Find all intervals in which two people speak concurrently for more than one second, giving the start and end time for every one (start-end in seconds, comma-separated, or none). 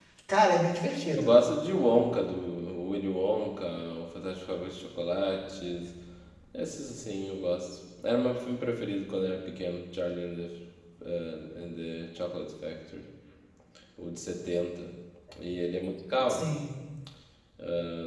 none